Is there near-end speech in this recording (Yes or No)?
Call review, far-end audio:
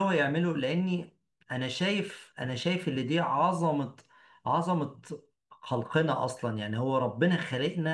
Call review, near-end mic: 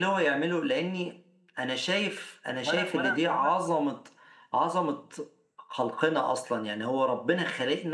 Yes